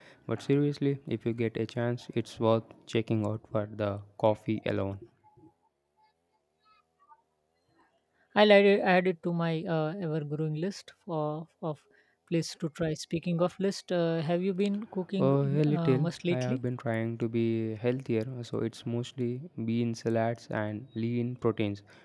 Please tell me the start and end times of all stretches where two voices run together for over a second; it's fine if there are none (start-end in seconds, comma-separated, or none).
15.2-16.6